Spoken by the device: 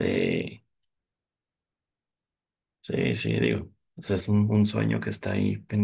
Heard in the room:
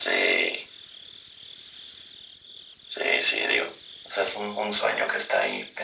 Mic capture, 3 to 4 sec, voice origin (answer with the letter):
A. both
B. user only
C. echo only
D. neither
C